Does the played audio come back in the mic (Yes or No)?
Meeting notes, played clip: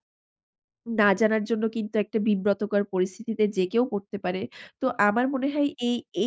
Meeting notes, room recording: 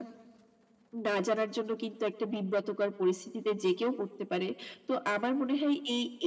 Yes